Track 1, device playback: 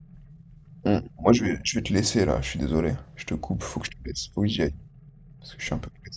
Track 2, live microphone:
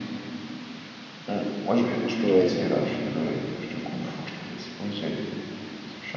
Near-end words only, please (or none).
Ouais, non, non.